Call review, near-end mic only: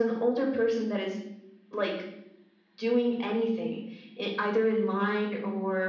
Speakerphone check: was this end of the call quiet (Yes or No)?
Yes